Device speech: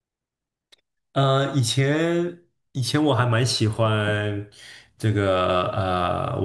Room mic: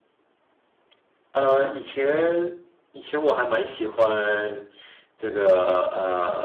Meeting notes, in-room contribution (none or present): none